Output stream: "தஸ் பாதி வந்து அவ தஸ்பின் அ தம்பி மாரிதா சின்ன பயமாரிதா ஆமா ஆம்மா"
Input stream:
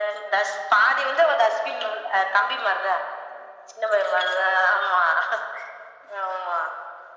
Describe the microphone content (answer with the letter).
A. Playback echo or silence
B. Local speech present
A